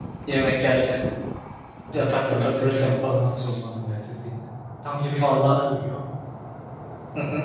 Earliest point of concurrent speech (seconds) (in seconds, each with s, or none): 1.9 s